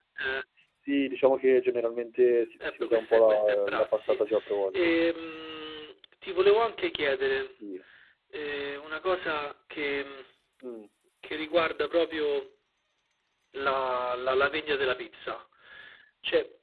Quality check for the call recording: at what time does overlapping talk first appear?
2.7 s

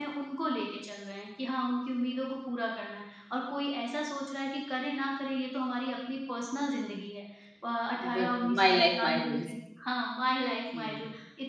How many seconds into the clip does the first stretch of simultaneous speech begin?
8.1 s

